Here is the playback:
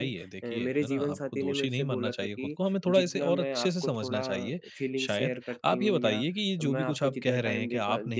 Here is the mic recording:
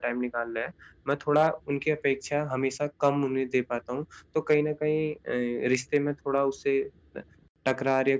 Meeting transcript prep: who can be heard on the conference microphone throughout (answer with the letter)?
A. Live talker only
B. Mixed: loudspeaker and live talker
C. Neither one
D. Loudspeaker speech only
A